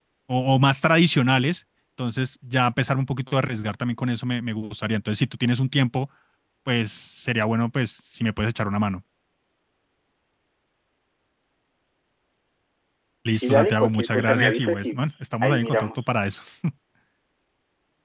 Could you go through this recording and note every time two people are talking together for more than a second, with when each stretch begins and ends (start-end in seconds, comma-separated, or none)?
13.3-16.0